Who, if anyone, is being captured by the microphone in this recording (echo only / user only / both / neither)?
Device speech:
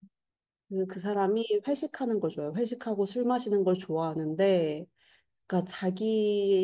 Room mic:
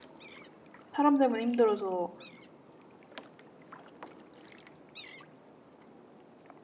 user only